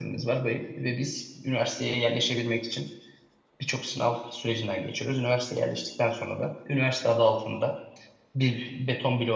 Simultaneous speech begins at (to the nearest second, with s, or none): none